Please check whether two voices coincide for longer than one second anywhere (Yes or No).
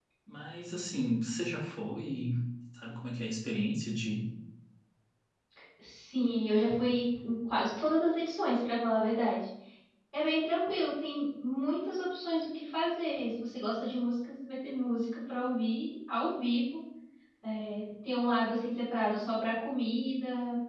No